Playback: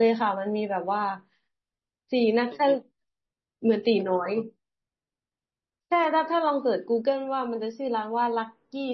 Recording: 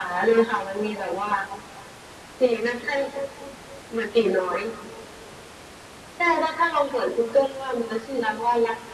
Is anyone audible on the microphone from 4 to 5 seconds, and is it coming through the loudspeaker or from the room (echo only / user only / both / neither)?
echo only